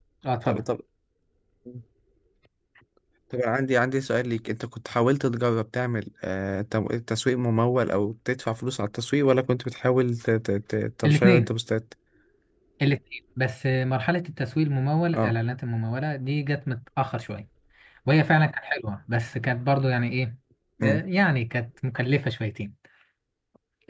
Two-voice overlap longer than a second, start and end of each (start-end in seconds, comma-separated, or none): none